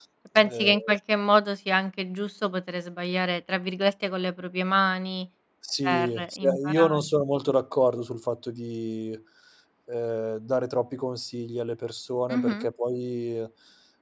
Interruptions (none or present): present